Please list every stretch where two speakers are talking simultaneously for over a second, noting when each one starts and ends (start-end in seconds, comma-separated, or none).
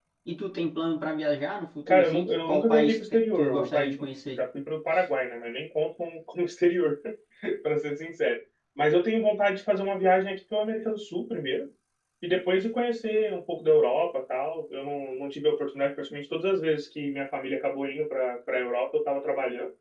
1.9-4.0